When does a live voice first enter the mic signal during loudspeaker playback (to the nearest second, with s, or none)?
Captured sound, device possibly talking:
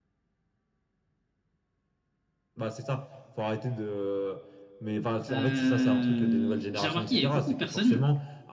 5 s